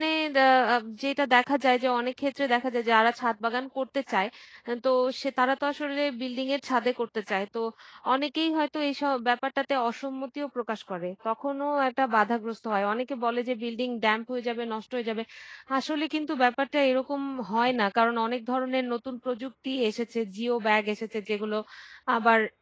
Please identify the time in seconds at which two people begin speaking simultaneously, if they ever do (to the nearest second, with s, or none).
none